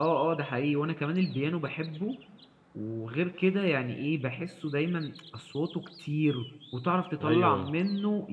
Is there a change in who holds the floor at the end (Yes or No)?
No